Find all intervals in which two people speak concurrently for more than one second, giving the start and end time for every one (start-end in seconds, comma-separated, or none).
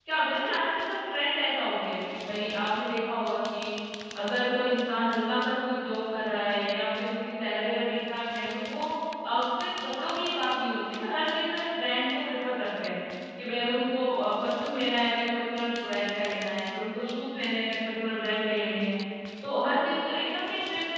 none